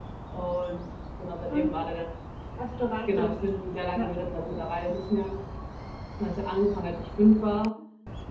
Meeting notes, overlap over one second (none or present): none